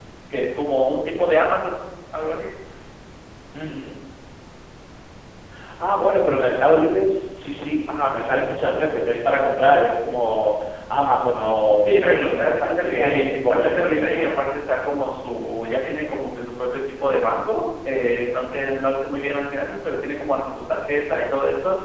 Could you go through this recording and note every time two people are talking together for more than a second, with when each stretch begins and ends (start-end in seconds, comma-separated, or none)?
11.8-14.3